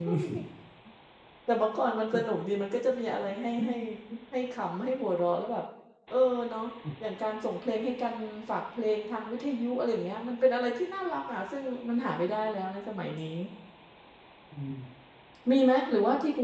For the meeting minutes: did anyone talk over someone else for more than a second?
No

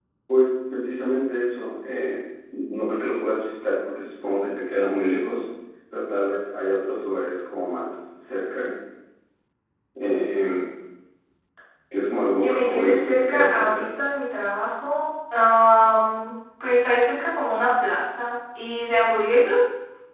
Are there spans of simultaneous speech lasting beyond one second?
Yes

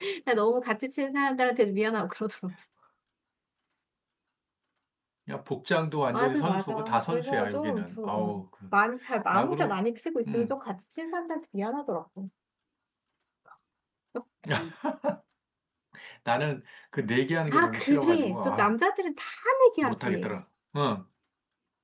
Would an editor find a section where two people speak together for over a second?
Yes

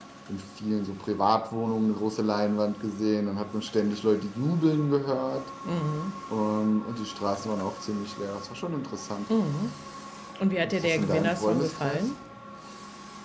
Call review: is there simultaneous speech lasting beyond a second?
Yes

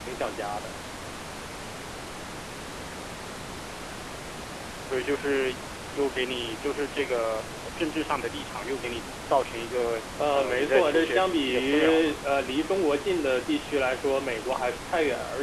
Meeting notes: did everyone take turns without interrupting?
No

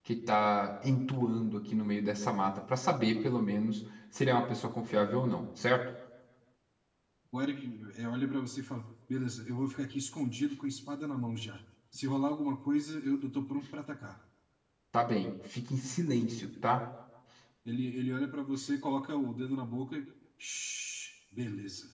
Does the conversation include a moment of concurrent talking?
No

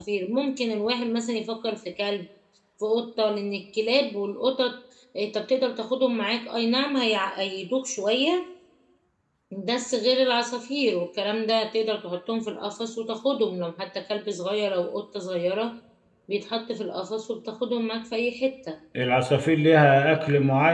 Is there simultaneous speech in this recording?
No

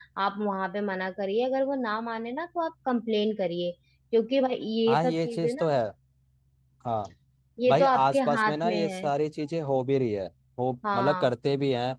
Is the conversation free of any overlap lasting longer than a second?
No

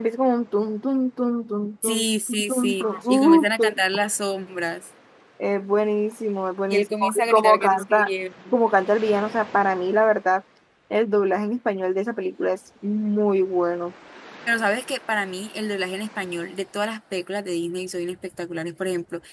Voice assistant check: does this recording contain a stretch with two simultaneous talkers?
Yes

